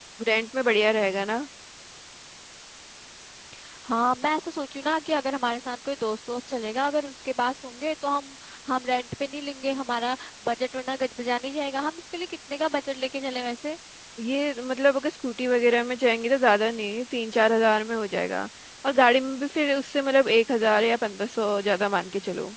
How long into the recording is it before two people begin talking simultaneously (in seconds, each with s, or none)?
none